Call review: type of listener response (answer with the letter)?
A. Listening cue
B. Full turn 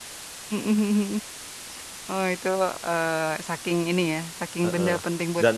B